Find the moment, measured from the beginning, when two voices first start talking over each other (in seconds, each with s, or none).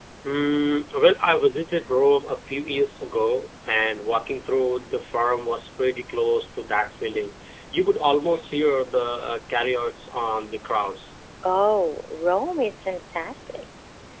none